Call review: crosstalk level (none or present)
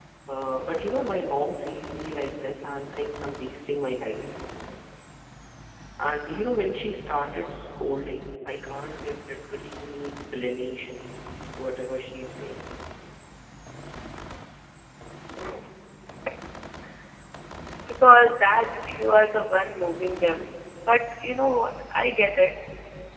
none